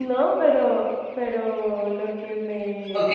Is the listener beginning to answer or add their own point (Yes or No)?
Yes